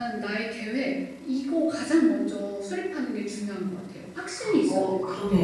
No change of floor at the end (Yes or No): No